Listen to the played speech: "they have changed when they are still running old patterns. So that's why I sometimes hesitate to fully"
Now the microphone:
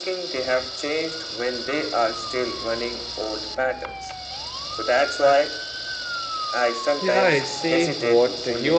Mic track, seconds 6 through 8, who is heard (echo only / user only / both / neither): both